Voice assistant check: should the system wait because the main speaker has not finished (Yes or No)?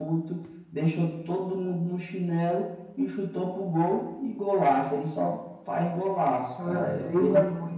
No